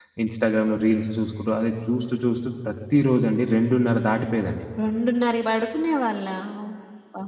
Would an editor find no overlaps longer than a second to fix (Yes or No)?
Yes